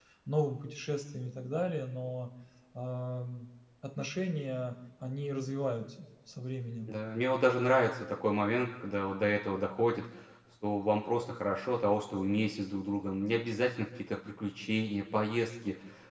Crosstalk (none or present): none